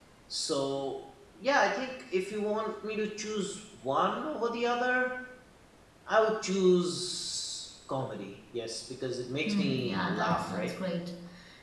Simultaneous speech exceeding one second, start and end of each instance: 9.5-10.7

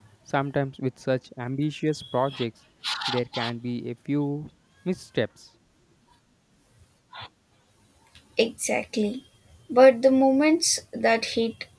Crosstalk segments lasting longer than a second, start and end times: none

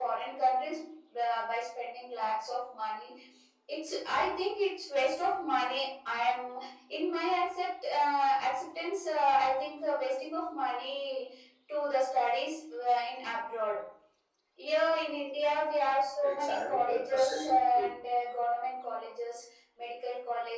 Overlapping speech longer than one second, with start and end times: 16.2-17.9

